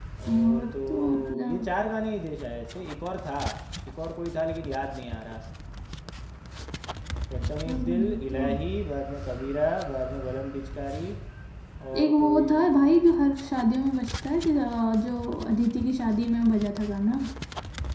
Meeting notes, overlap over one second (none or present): present